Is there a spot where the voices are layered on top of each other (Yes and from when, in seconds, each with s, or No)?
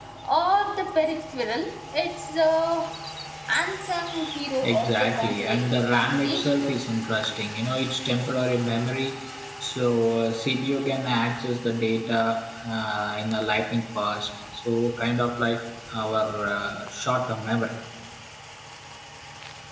Yes, from 4.6 s